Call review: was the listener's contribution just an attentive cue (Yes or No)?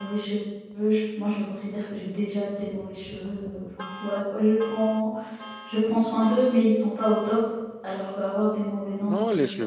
No